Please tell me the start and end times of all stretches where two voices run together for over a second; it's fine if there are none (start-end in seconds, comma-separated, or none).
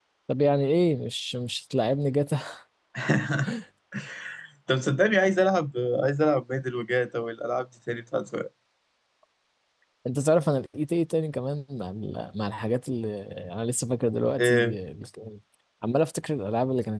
none